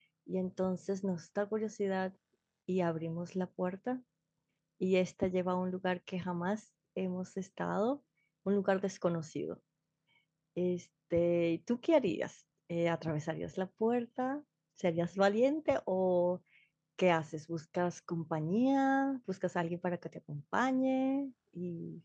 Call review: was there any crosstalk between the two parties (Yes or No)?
No